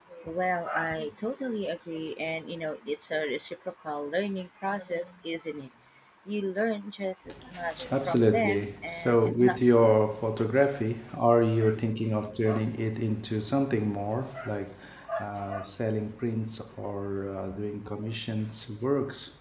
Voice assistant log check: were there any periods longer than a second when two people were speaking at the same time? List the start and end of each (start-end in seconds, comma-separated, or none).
7.9-9.9